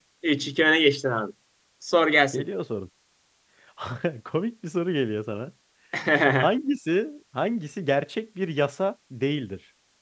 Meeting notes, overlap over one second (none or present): none